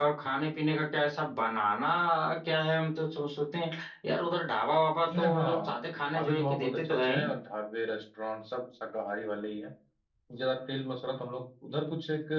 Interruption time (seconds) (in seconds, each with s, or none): 5.1 s